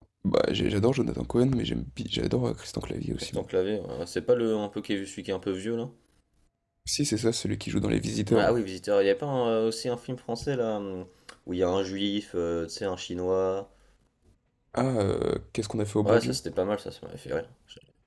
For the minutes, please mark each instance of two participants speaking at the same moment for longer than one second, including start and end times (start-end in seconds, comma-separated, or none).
none